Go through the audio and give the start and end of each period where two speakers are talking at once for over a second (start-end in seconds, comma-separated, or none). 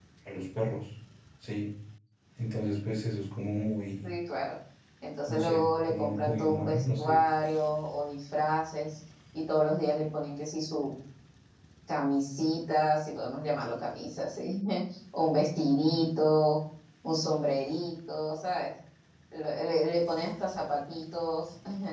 5.3-7.2